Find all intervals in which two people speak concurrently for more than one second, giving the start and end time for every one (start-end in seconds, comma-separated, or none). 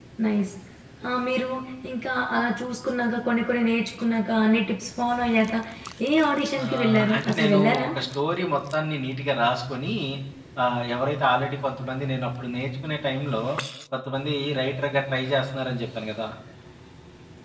6.6-7.9